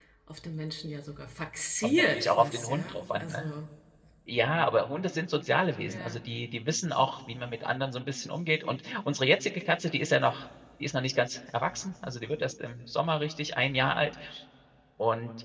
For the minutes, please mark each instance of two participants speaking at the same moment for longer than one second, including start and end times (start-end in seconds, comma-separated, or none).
1.8-3.5